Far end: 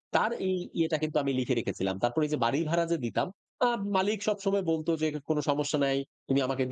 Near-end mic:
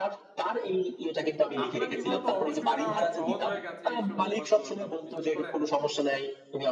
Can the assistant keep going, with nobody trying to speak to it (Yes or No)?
No